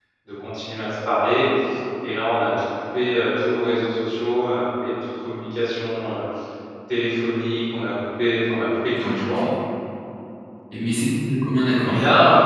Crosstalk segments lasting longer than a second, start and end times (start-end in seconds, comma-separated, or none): none